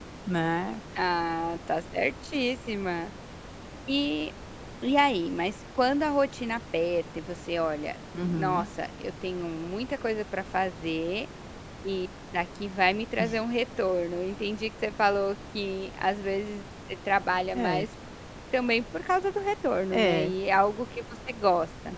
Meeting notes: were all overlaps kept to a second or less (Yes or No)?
Yes